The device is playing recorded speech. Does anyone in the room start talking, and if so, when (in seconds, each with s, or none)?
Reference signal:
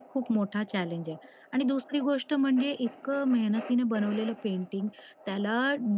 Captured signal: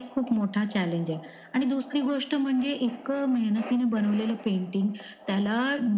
none